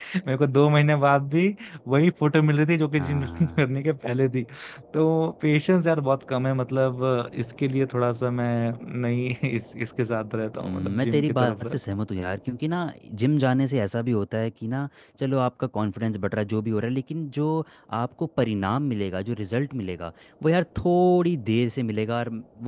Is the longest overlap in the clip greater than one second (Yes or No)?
Yes